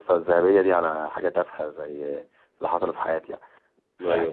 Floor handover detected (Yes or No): No